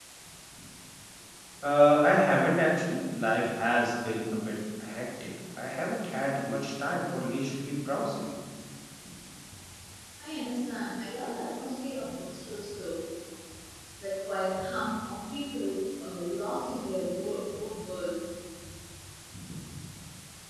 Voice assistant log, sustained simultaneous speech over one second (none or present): none